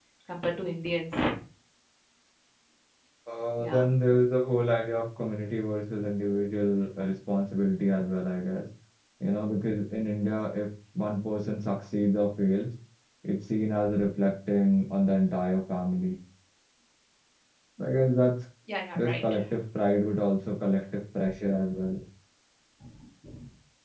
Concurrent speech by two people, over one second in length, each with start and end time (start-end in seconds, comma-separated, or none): none